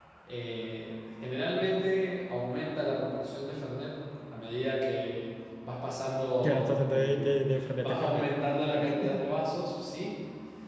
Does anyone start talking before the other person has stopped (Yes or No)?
Yes